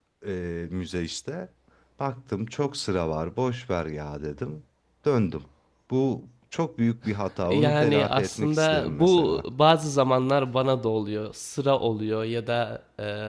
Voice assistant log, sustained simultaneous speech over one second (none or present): present